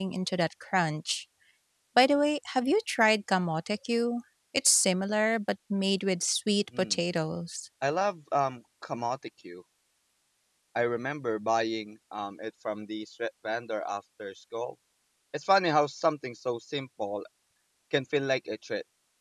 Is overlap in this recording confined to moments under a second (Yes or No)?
Yes